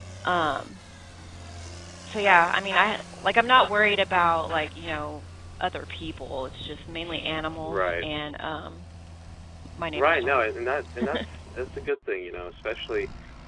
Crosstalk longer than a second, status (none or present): none